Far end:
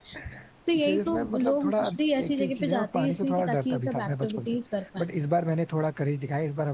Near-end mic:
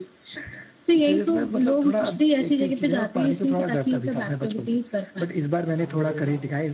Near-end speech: present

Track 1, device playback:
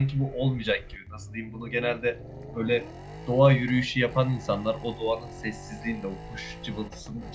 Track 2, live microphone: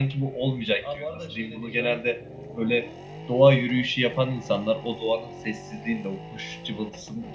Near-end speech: present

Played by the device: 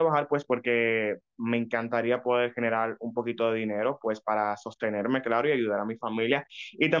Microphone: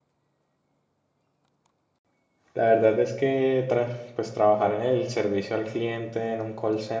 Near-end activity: present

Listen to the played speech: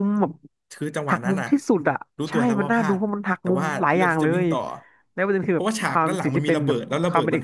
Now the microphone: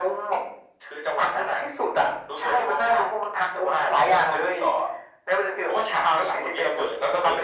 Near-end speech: none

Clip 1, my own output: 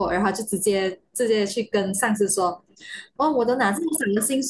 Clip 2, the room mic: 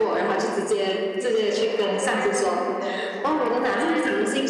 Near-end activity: present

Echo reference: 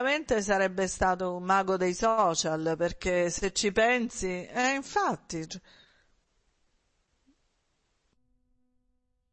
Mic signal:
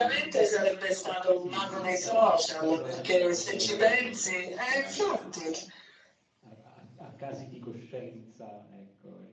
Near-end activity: present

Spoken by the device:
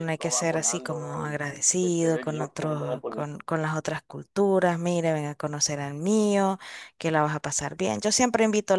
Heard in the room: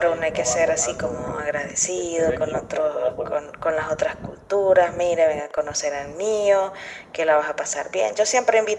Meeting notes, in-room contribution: none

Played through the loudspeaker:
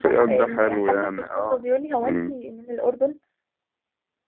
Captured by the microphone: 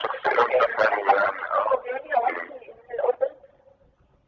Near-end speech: none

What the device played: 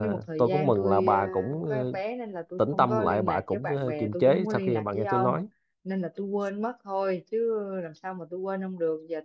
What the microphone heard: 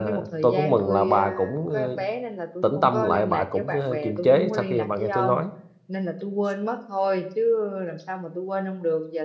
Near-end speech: none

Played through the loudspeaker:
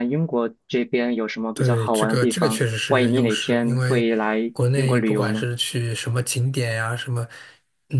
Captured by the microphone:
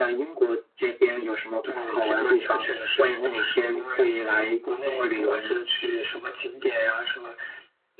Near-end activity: none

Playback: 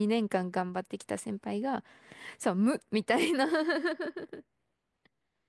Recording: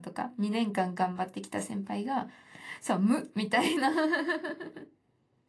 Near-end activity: none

